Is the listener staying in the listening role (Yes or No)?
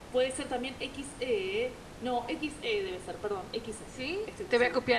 No